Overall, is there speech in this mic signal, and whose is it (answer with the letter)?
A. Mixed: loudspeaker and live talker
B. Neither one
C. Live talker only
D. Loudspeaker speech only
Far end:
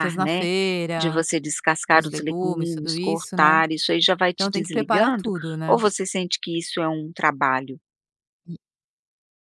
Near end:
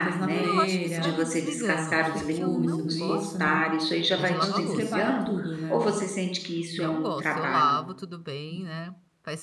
A